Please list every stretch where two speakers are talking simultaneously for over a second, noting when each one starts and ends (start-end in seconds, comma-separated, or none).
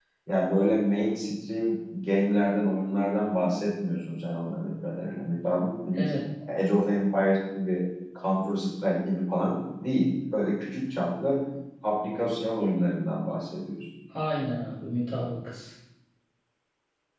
none